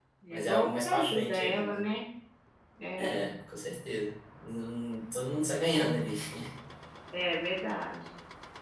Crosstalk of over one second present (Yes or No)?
Yes